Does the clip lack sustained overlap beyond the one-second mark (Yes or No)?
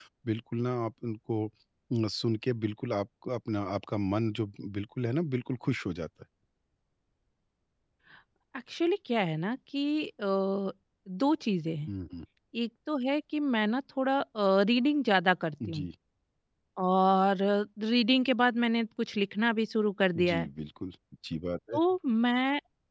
Yes